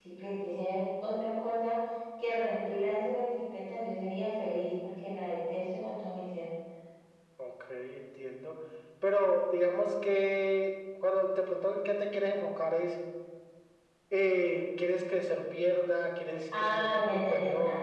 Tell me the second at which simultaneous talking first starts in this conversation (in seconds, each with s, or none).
16.5 s